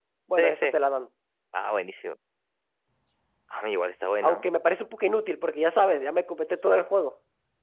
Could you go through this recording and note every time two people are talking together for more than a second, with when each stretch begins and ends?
none

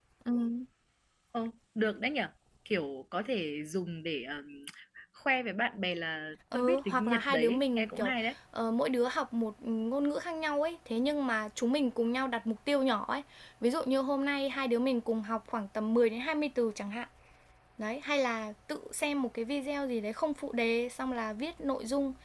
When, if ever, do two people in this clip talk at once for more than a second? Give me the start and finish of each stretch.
6.5-8.1

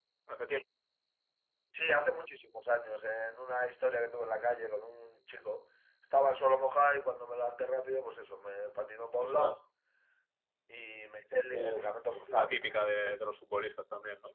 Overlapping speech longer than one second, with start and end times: none

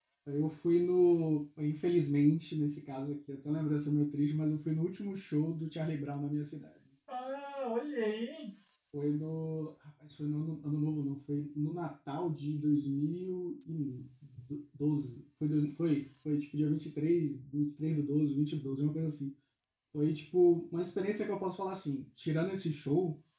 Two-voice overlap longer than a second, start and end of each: none

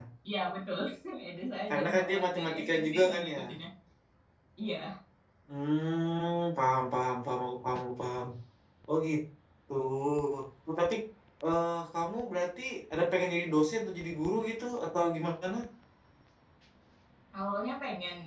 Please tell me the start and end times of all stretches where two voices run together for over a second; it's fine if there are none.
1.7-3.4

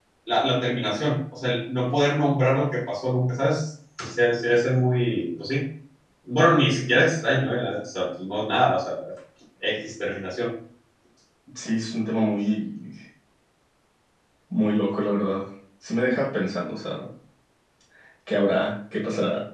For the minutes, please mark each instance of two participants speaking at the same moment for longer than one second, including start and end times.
none

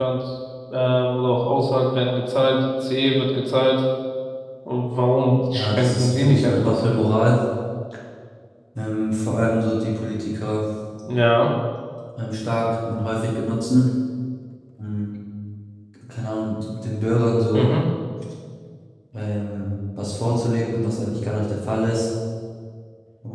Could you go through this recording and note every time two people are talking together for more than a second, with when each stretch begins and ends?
5.5-6.8

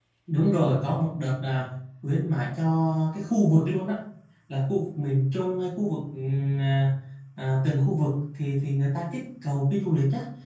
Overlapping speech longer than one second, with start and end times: none

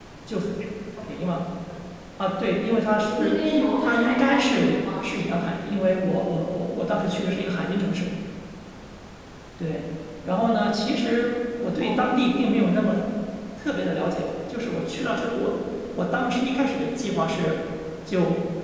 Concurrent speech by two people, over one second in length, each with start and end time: 3.8-5.1

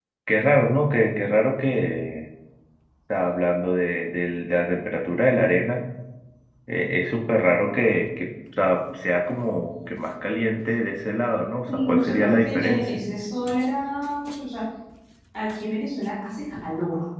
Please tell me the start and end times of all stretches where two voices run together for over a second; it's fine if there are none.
11.7-13.0

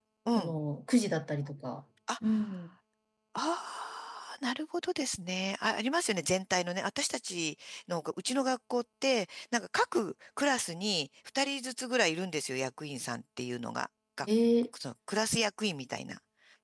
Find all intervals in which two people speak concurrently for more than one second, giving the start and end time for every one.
none

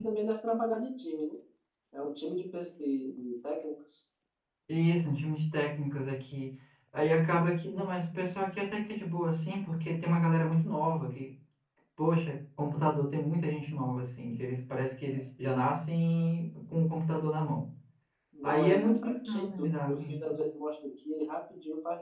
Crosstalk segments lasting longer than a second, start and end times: 18.4-20.2

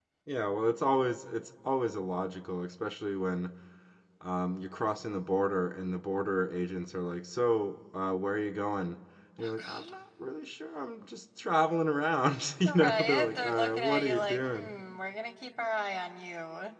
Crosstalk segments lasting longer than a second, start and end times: 12.7-14.7

